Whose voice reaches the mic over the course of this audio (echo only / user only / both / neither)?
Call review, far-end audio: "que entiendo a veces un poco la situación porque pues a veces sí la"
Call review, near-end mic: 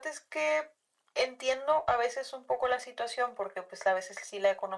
echo only